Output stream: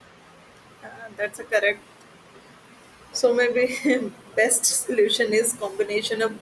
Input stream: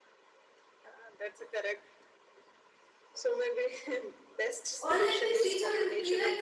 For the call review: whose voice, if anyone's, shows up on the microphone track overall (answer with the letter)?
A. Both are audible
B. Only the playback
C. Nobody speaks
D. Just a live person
A